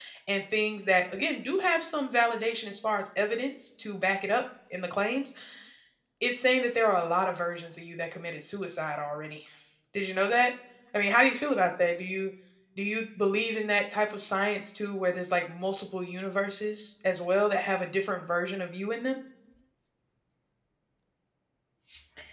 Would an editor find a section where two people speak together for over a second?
No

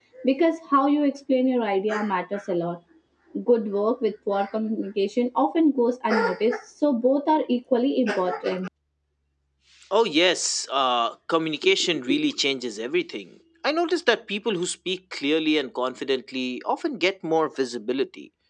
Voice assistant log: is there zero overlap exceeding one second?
Yes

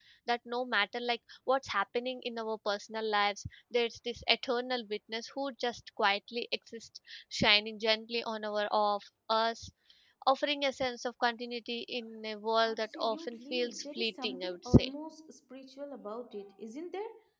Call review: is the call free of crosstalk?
No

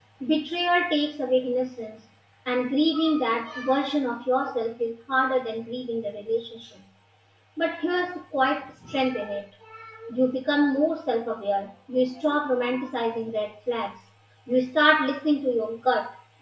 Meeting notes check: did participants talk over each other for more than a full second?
No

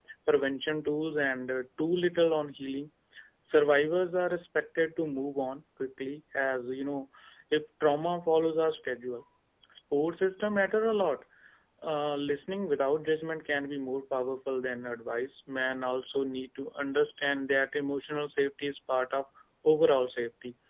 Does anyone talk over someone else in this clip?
No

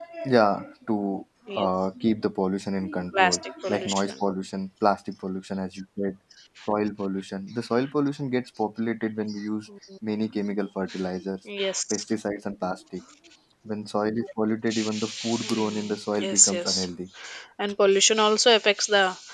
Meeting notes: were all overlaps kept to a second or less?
No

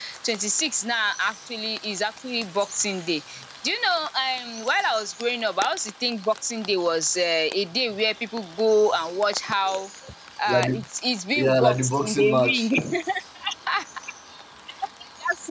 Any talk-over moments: Yes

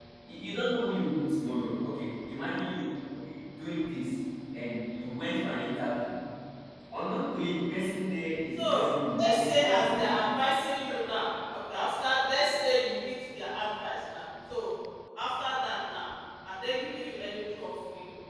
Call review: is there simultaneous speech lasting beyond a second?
Yes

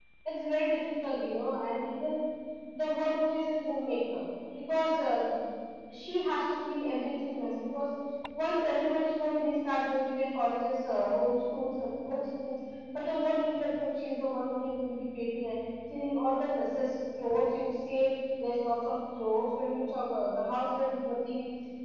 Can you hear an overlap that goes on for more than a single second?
No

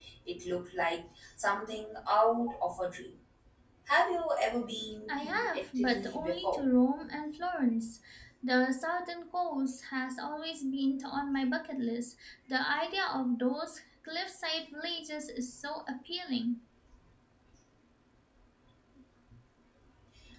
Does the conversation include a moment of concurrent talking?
Yes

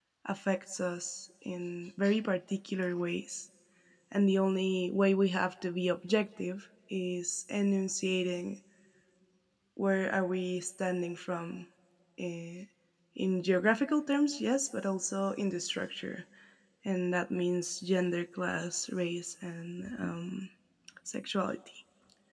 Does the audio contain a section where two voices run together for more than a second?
No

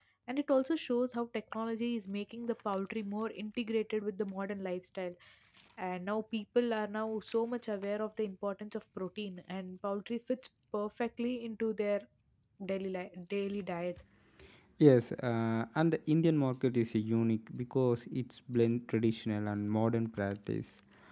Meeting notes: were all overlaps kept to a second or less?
Yes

